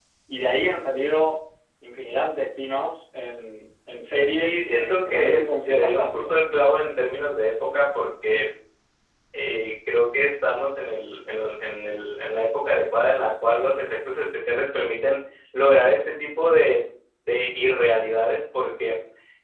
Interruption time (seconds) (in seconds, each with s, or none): 4.3 s